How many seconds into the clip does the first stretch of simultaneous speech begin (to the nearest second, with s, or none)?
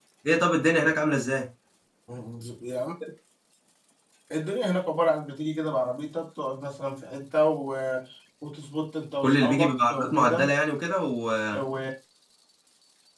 9 s